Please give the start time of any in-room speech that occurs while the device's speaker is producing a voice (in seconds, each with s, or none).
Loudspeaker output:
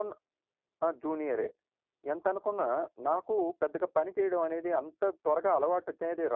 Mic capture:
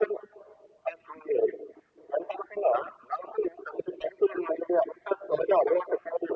none